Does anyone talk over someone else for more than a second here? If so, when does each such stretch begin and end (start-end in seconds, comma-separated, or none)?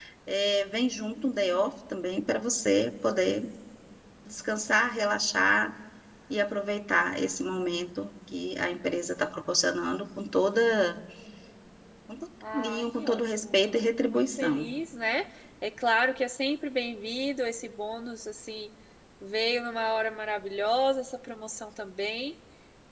12.5-14.7